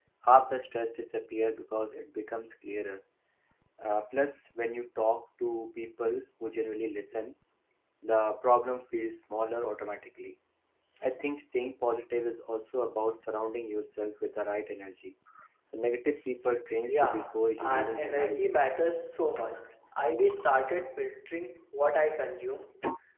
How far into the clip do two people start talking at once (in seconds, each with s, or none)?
16.9 s